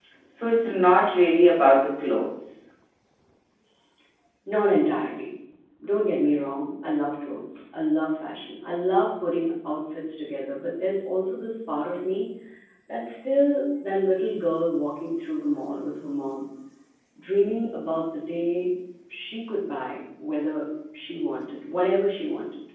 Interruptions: none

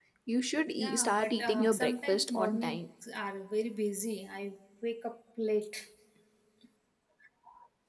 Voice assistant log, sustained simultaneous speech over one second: present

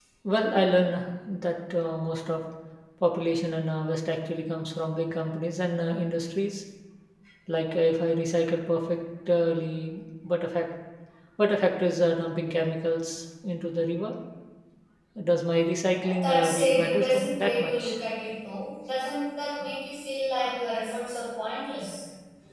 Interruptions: present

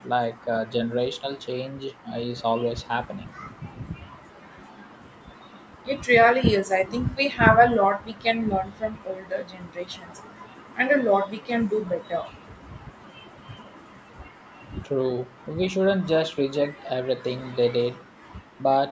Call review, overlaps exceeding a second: none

